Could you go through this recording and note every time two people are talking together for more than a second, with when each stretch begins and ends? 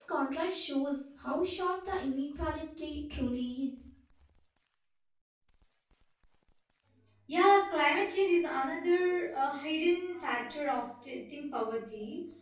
none

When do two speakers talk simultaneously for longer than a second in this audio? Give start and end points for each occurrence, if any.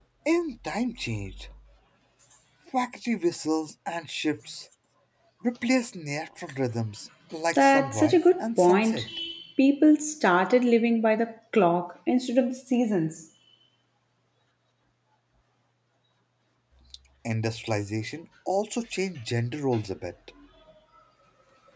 7.5-9.1

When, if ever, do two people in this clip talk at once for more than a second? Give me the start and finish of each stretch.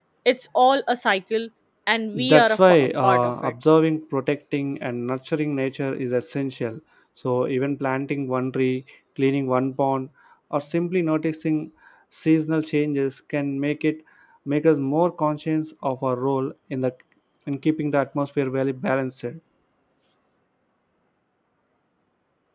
2.1-3.5

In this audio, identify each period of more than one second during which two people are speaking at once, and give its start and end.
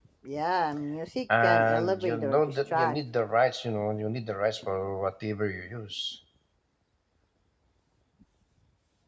1.4-3.0

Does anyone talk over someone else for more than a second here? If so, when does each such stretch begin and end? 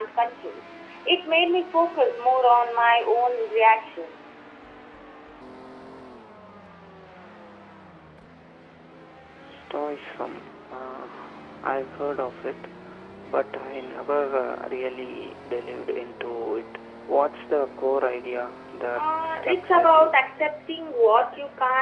18.9-20.1

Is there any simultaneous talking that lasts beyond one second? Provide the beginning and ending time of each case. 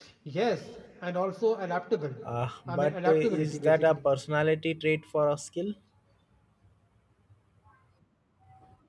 2.7-4.0

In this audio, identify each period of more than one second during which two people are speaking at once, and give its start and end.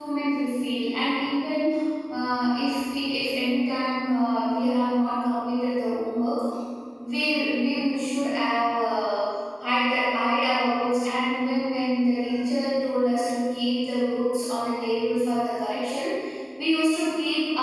none

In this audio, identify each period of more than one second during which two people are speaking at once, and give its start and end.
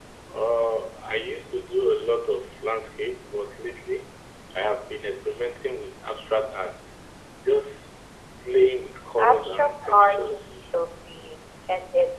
9.2-10.5

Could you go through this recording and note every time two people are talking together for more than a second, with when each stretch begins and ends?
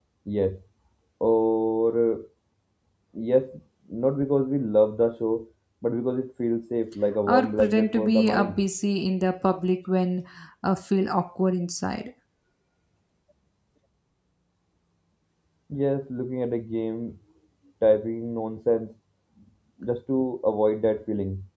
7.3-8.6

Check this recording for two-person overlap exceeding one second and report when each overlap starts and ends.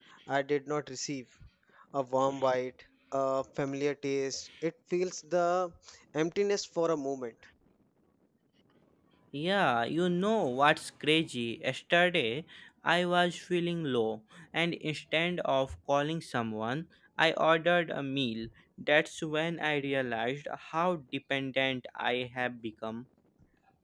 none

